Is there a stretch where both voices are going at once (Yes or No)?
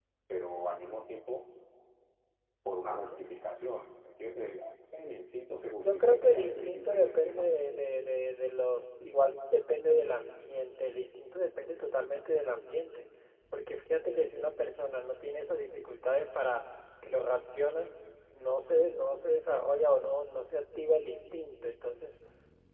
Yes